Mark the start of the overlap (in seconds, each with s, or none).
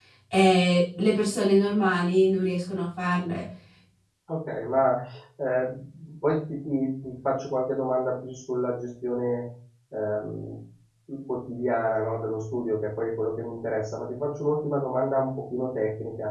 none